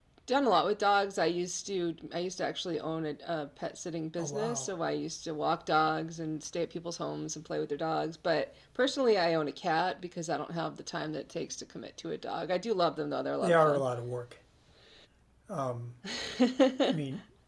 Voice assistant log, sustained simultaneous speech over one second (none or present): none